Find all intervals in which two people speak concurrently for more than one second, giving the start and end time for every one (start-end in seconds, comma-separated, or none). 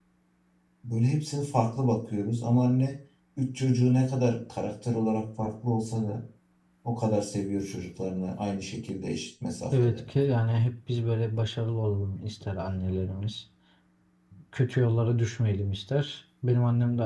none